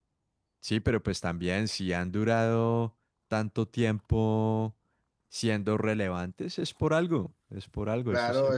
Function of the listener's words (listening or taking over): taking over